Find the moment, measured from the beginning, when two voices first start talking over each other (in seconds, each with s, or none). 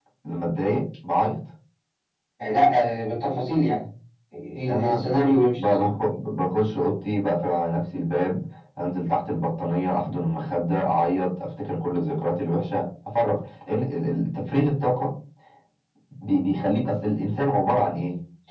4.7 s